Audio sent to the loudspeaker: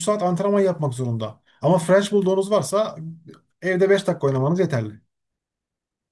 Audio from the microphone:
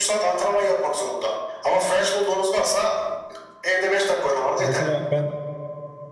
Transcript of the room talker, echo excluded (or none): Mesela ben